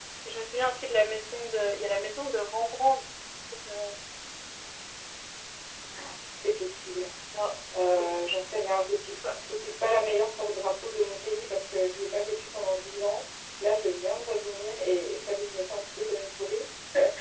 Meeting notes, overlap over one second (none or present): none